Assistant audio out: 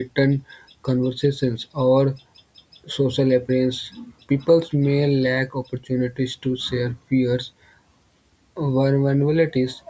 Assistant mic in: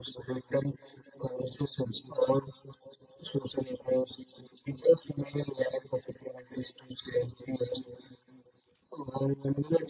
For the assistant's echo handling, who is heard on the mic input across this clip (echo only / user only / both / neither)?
echo only